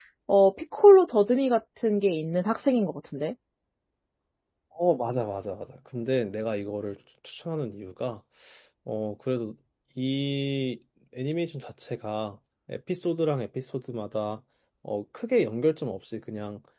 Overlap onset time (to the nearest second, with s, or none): none